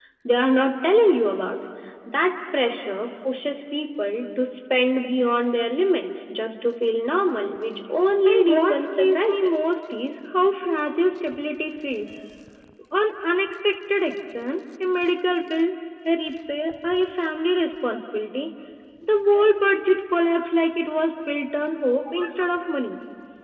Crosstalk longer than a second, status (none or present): present